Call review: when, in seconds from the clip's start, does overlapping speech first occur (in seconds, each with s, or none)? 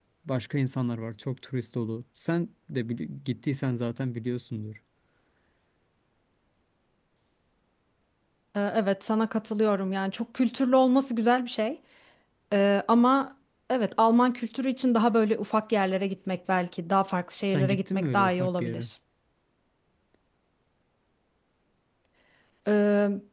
17.4 s